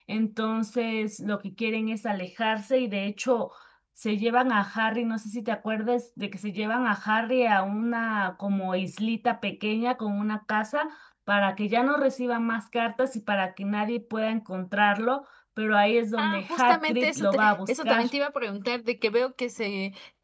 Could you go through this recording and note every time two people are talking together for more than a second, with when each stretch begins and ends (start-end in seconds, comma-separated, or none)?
16.2-18.0